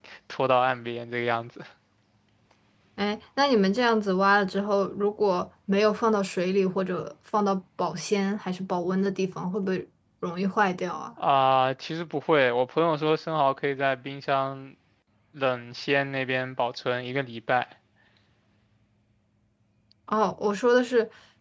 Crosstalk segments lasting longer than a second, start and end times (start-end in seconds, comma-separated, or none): none